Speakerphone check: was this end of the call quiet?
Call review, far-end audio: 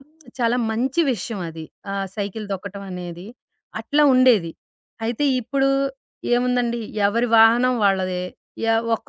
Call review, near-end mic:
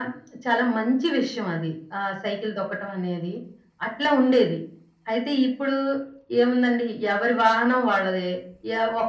Yes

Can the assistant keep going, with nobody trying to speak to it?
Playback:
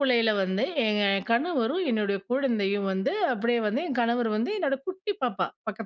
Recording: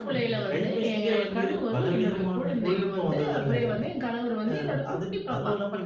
No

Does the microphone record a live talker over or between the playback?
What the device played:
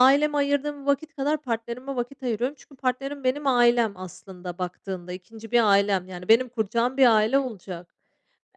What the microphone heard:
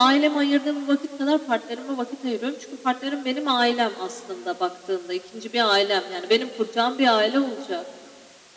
No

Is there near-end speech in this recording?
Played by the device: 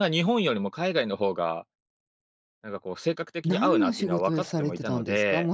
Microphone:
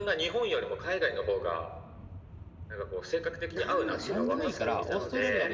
Yes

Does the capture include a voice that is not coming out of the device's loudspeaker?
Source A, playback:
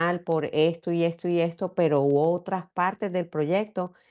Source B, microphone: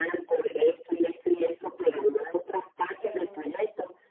Yes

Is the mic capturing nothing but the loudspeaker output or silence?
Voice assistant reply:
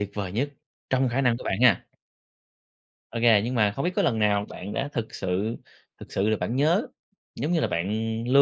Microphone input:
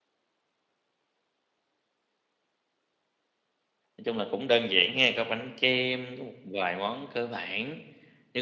No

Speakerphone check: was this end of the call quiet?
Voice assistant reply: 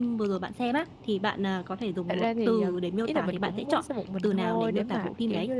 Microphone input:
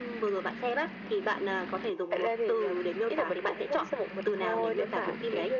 Yes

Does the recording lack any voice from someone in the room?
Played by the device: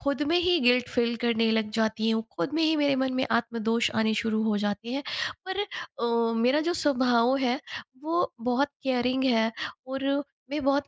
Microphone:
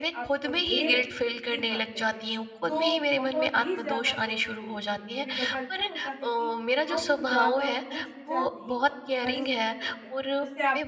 No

